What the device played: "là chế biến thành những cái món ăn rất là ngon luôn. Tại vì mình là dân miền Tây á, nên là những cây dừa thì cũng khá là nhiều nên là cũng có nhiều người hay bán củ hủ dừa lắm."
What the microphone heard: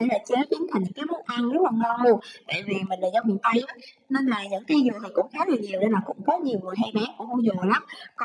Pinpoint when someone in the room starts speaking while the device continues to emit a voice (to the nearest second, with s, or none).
none